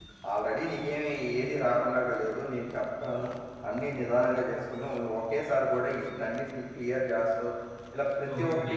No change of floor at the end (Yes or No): No